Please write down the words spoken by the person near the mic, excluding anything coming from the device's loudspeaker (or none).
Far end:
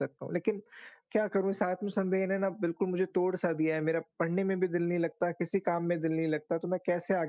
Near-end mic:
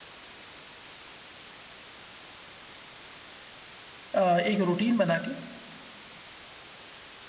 अ, एक रूटीन बना के,